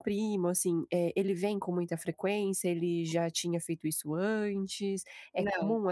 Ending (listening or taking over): listening